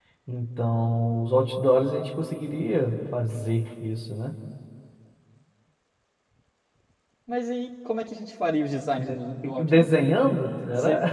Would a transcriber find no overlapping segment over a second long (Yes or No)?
Yes